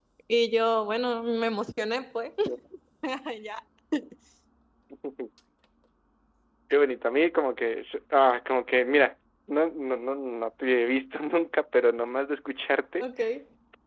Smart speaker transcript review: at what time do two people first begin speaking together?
none

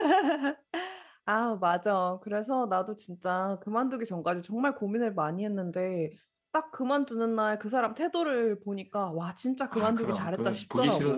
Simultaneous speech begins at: 10 s

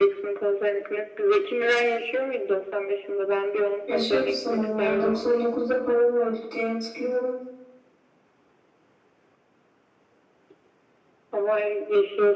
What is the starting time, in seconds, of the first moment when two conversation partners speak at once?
4 s

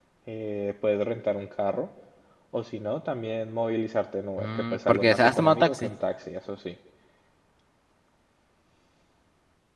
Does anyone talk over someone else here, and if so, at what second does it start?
4 s

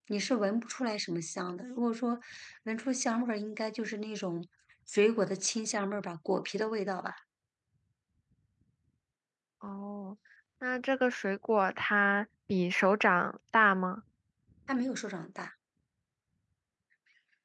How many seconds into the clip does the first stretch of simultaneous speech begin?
none

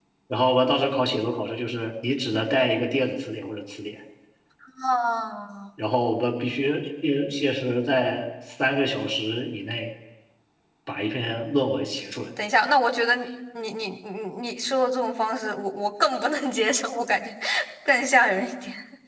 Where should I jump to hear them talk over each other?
none

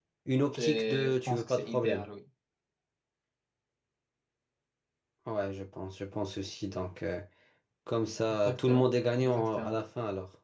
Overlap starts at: 1 s

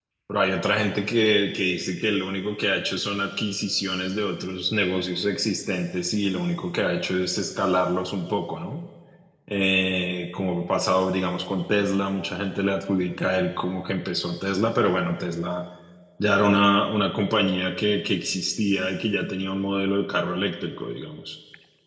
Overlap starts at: none

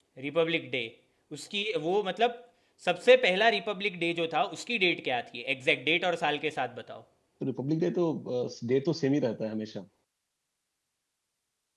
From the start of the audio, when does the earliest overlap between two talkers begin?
none

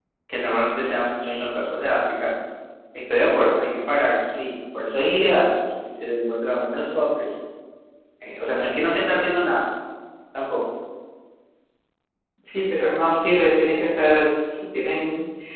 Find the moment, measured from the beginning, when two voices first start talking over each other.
none

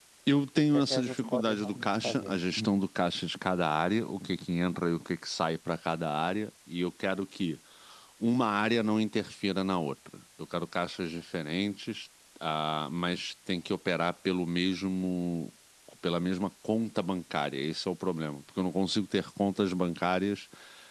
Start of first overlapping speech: 1 s

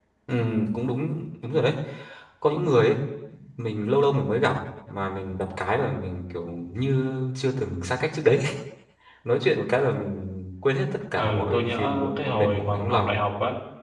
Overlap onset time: 11 s

